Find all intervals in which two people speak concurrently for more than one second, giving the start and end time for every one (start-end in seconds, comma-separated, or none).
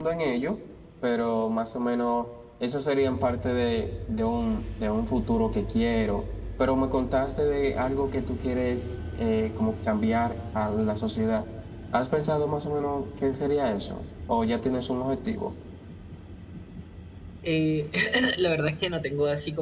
none